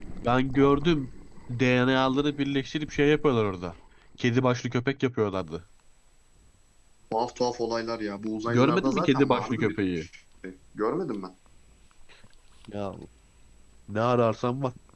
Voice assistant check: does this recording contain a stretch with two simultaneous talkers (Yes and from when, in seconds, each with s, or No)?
Yes, from 8.4 s